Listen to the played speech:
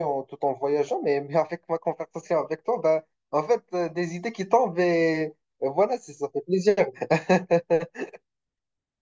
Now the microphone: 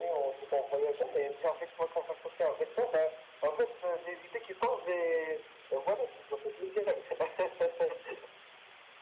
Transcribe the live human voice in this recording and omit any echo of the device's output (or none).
none